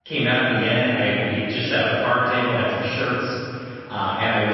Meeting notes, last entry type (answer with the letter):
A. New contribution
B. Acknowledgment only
B